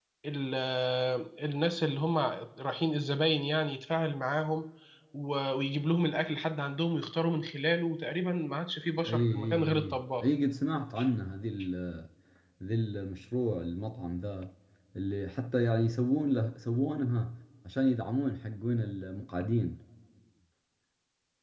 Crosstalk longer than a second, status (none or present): present